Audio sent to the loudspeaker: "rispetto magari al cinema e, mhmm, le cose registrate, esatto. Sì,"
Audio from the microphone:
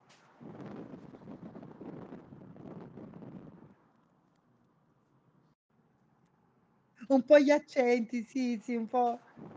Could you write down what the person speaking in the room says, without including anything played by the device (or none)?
un po' gli accenti, sì, sì, un po'